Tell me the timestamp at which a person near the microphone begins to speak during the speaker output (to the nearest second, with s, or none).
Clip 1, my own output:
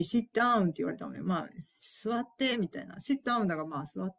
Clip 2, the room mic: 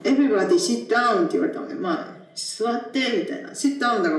none